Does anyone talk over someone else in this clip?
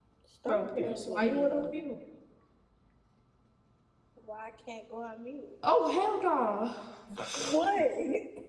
Yes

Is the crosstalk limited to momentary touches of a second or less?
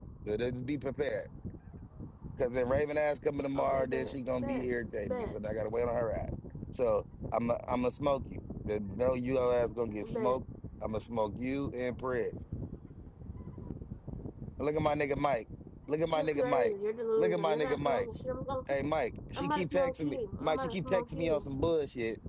No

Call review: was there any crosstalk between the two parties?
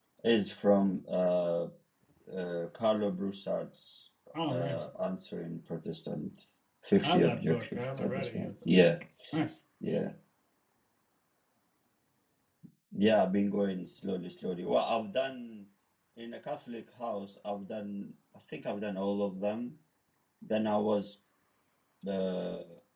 Yes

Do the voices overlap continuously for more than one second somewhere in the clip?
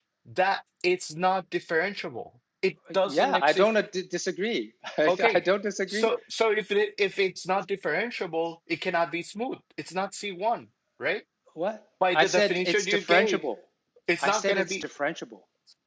Yes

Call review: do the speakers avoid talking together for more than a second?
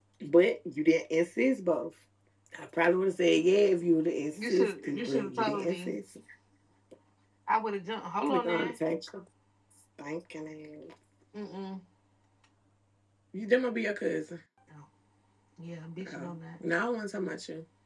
No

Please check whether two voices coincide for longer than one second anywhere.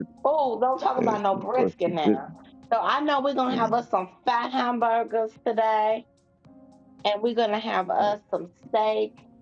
Yes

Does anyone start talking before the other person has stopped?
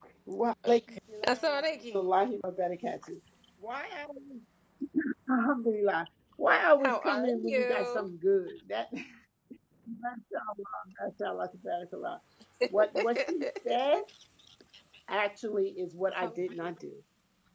Yes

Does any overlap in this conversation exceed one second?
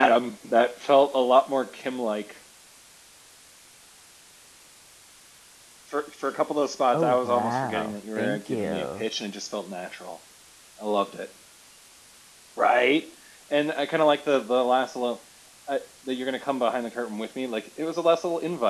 Yes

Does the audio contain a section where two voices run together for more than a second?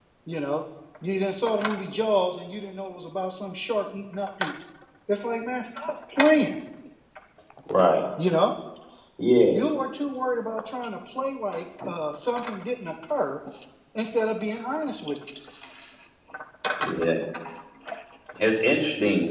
No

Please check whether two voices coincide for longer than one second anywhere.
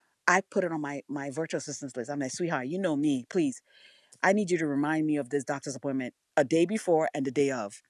No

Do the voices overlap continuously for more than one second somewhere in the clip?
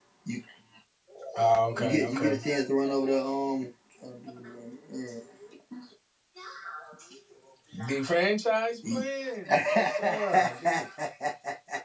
Yes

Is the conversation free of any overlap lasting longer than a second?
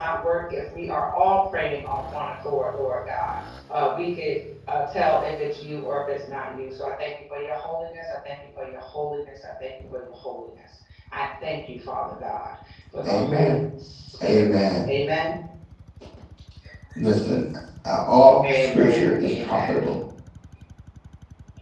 No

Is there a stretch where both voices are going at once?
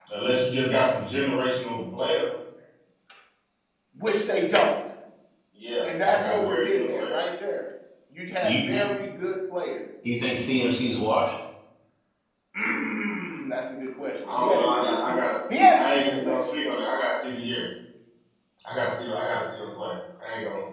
Yes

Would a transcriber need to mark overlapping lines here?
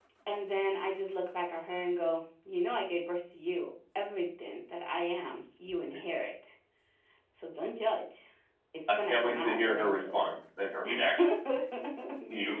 Yes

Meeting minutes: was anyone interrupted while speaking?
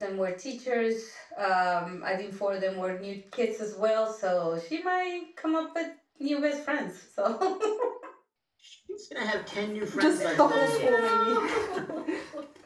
Yes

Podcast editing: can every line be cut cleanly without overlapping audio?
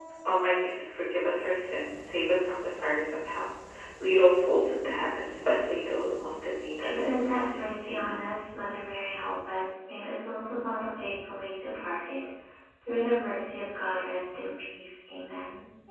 No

